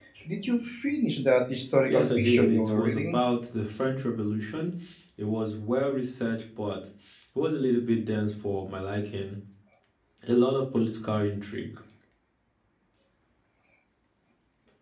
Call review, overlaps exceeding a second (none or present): present